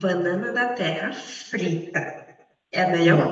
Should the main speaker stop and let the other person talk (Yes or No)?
No